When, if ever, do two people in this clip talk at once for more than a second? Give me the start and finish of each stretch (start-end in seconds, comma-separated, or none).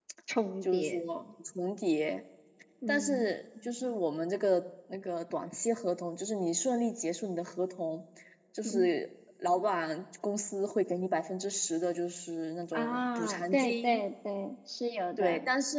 12.7-14.0